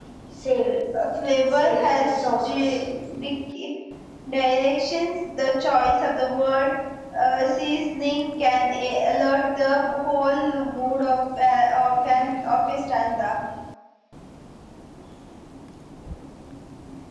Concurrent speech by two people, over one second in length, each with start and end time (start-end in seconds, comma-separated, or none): 1.4-2.9